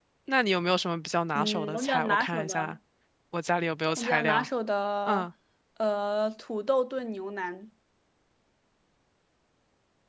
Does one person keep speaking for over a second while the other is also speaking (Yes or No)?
Yes